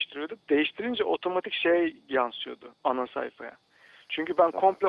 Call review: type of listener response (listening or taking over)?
listening